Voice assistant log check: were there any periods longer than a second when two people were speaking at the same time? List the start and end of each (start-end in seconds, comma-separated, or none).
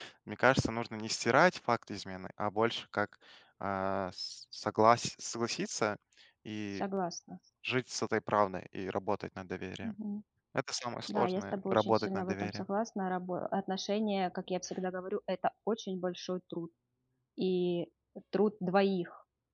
11.1-12.6